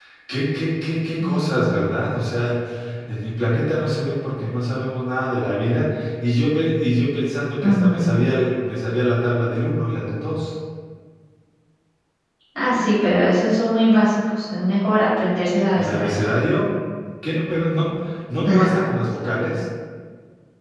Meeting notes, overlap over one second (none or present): none